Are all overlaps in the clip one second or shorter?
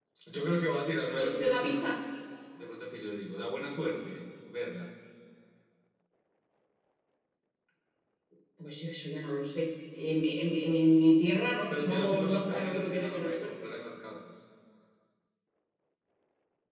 No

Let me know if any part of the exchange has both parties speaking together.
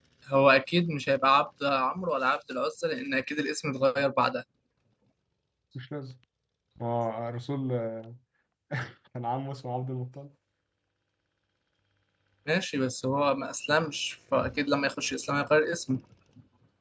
No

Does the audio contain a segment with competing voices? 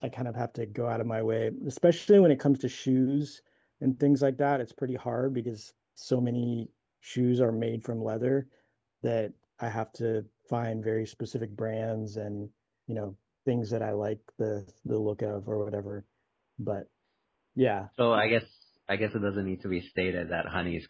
No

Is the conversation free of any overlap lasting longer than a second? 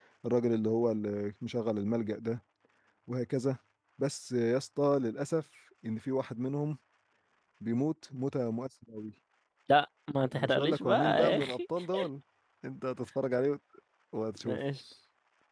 No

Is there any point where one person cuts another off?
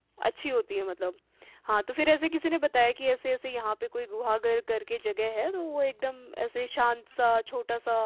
No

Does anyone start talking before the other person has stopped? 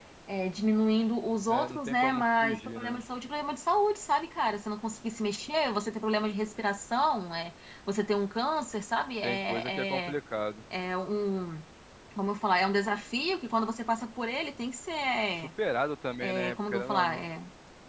Yes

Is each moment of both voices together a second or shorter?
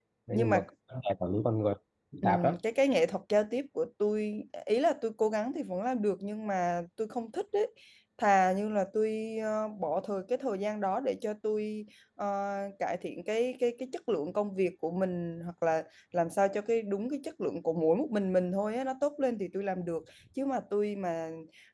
Yes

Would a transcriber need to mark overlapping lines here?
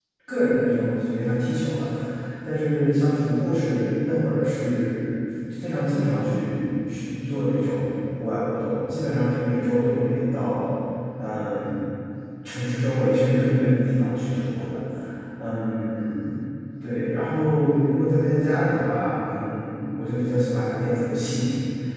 No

